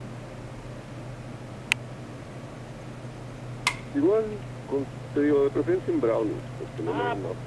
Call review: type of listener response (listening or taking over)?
taking over